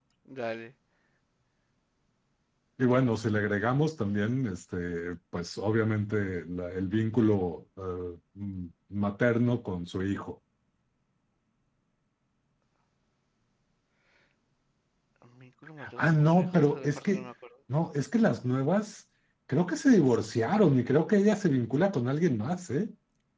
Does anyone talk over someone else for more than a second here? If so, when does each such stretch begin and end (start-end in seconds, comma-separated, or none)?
16.0-17.3